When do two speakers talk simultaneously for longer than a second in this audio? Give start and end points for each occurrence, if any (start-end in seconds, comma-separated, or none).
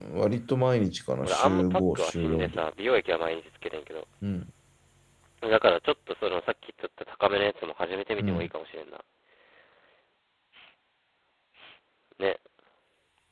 1.2-2.6